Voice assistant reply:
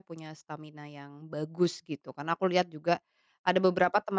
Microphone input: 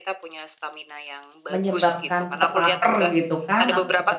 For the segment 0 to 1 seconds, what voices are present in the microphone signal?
echo only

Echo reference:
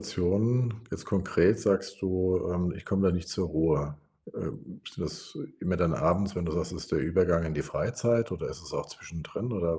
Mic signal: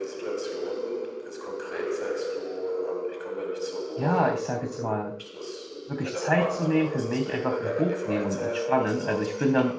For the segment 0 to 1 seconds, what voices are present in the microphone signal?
echo only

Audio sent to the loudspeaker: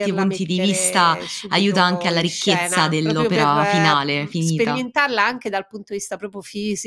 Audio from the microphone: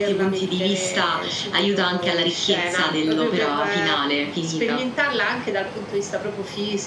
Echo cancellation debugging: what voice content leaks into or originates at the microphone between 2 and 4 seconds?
echo only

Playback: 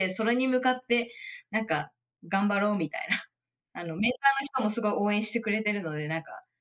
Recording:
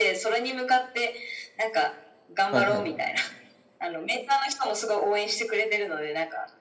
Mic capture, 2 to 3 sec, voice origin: both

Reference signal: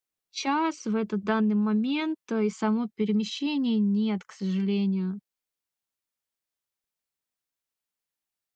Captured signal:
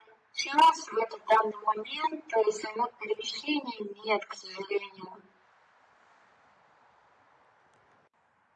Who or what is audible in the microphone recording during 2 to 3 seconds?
echo only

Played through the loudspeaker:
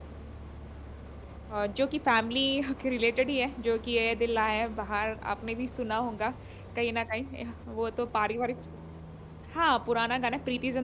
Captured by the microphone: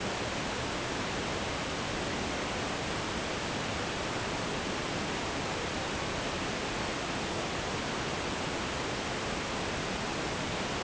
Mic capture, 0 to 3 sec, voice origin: neither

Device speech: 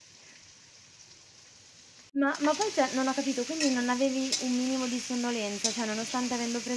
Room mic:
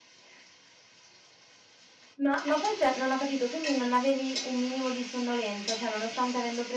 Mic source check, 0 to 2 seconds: neither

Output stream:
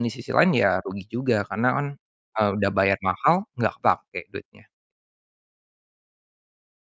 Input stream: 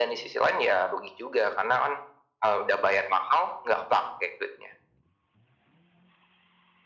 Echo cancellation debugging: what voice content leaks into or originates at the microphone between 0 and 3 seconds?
echo only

